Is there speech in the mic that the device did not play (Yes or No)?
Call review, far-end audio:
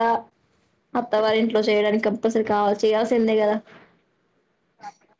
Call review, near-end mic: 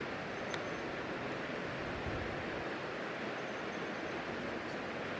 No